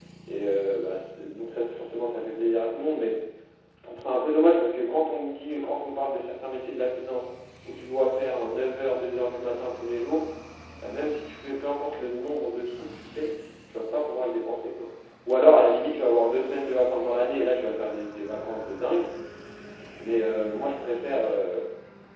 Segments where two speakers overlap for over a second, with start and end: none

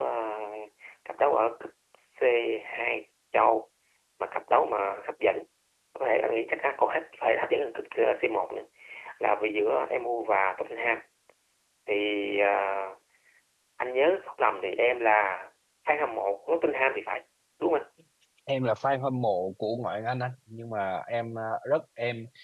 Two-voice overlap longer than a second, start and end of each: none

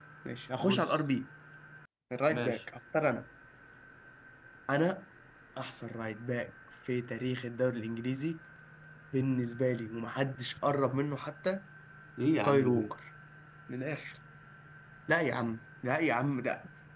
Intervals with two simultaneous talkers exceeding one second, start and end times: none

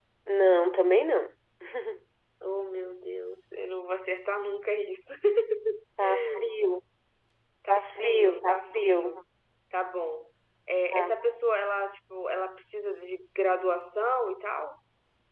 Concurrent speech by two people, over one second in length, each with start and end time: 7.7-9.2

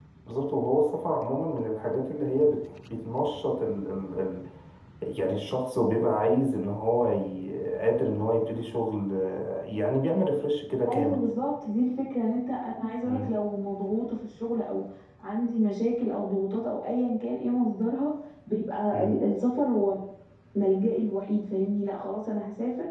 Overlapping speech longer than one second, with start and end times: none

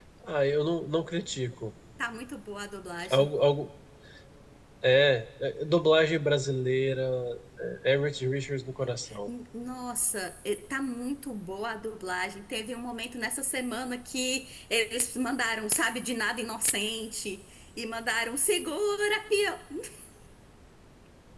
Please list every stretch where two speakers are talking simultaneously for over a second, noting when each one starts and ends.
none

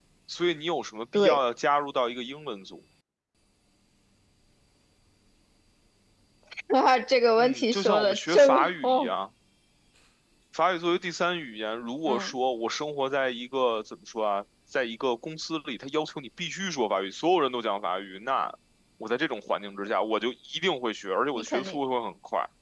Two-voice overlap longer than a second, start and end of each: 7.4-9.1

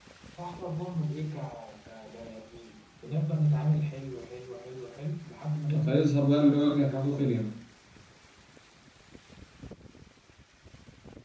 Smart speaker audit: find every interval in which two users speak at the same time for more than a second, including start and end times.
5.8-7.3

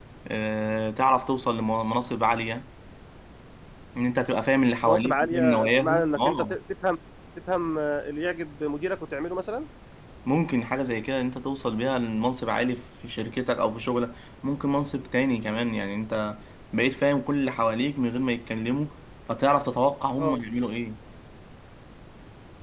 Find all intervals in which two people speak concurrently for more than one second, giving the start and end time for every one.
4.9-6.6

